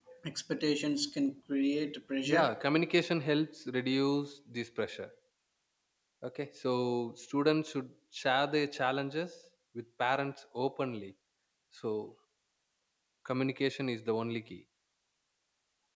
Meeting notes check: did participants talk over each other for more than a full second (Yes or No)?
No